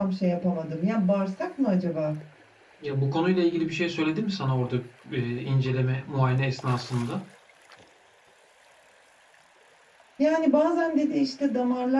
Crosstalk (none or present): none